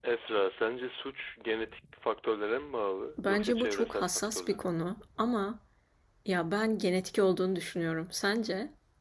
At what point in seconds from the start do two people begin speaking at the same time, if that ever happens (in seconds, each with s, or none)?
3.2 s